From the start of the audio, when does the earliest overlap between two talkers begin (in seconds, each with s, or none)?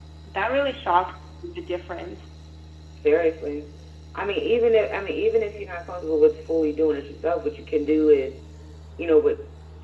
none